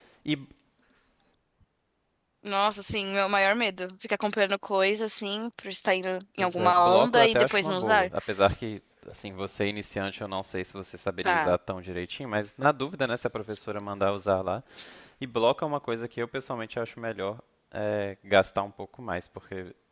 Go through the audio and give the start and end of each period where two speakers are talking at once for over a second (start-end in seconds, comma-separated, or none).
6.4-8.1